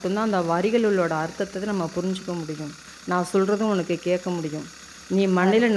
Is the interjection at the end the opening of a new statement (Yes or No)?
No